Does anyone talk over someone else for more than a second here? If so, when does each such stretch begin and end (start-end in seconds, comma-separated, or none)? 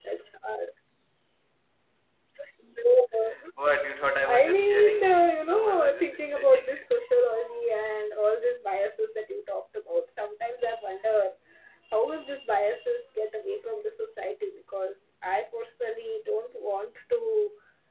4.2-6.9